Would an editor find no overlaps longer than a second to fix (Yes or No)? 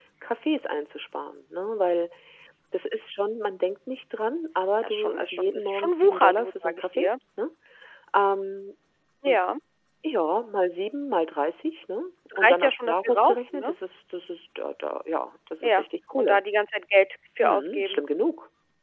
No